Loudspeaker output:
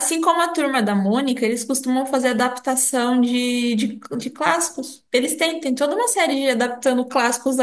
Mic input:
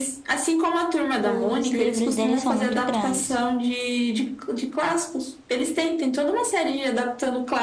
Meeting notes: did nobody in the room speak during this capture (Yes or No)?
No